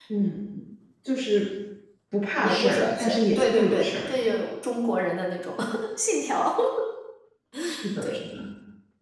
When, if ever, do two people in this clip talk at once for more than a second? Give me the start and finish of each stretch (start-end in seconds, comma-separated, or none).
2.4-4.1